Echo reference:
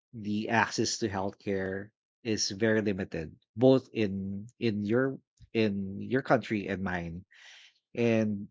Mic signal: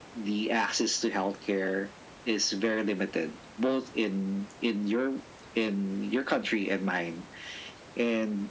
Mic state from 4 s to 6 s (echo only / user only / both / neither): echo only